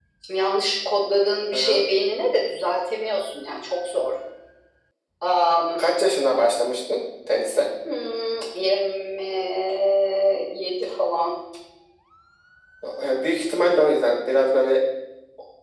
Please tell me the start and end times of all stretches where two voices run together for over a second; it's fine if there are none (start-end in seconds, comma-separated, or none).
none